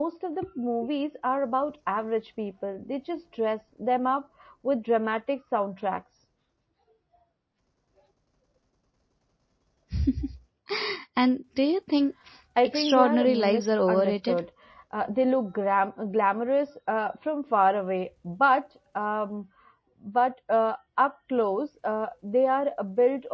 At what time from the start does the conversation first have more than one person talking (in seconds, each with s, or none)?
12.6 s